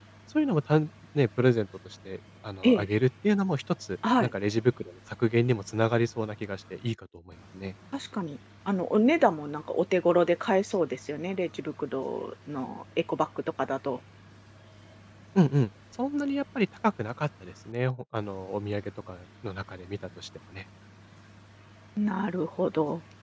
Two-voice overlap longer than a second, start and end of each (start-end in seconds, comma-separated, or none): none